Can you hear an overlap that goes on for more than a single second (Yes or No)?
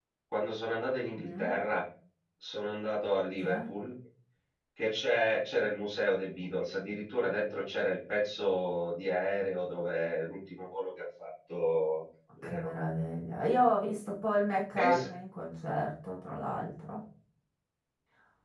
No